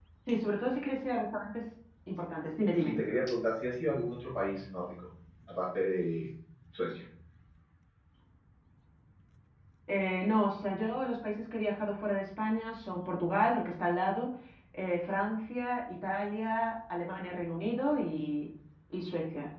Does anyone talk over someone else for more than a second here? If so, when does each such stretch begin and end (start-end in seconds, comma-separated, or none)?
none